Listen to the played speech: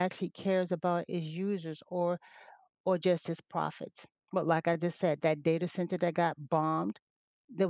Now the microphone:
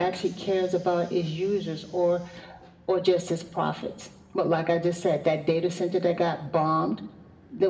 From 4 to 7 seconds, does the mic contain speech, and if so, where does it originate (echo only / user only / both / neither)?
echo only